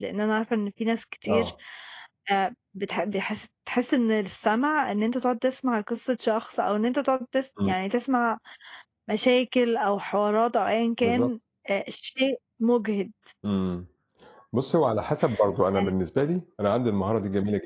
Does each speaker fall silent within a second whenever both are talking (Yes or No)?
Yes